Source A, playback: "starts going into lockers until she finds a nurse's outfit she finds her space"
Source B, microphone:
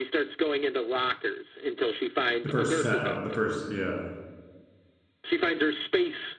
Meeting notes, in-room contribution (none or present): present